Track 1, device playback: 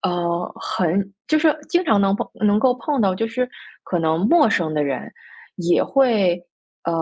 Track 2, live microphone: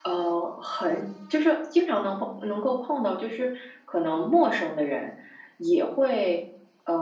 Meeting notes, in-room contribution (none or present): none